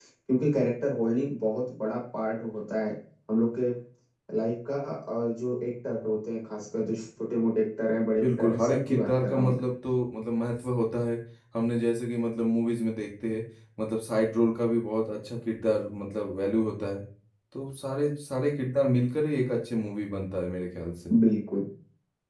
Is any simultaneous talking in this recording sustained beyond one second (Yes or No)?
Yes